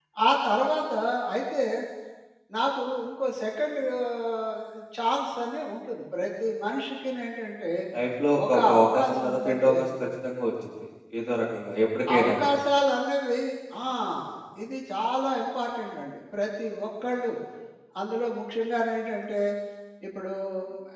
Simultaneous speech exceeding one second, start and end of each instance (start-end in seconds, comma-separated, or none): 8.5-9.8